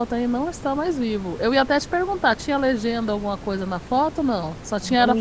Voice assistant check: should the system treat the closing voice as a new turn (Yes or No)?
Yes